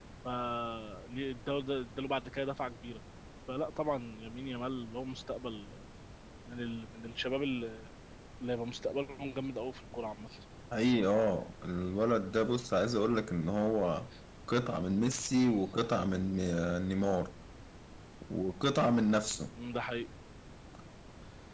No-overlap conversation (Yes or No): Yes